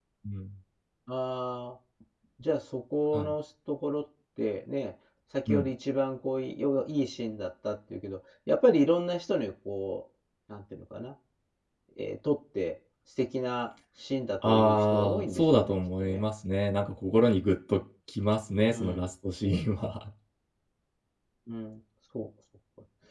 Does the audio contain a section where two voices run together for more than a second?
Yes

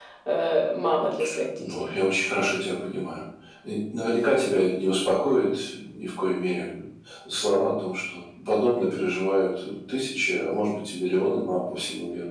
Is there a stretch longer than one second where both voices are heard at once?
No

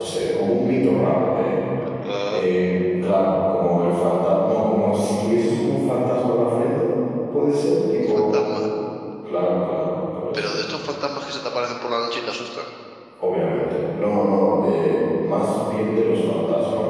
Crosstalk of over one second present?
No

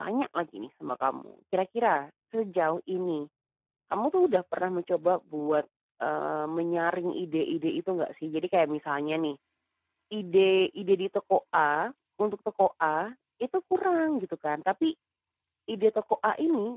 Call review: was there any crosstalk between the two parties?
No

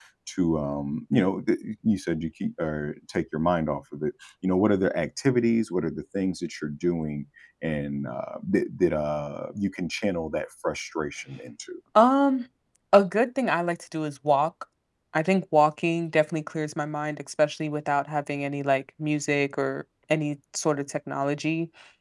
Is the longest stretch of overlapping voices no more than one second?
Yes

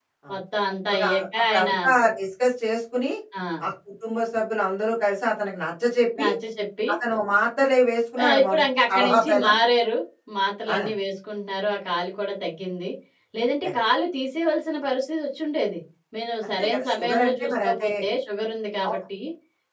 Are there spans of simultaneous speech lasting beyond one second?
Yes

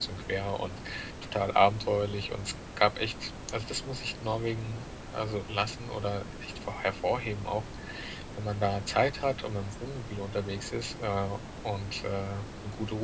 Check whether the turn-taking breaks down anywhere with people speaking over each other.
No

